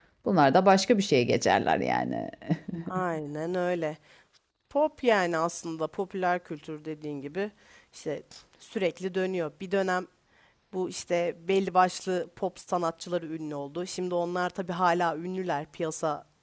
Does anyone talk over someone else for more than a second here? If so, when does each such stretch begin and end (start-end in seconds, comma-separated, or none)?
none